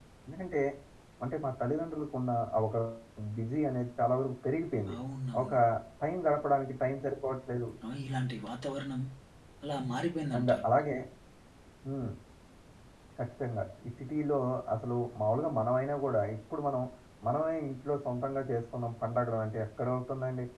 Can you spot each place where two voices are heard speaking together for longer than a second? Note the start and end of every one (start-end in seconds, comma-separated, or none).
none